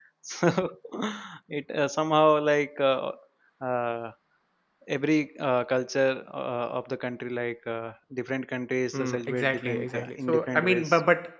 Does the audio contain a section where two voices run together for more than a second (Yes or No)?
Yes